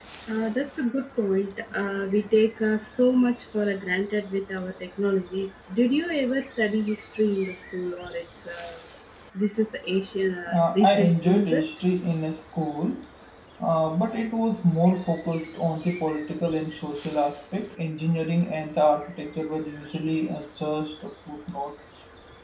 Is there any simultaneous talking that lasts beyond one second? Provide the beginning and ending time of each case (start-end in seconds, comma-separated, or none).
10.5-11.7